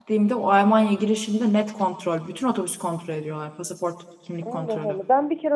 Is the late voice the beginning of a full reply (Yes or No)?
Yes